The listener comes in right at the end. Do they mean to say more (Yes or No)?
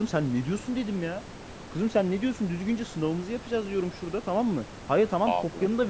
No